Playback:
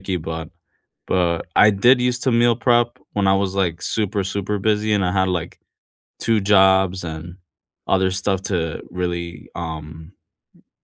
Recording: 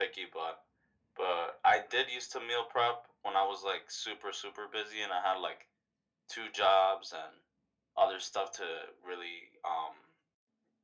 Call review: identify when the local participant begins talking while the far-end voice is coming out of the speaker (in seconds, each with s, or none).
none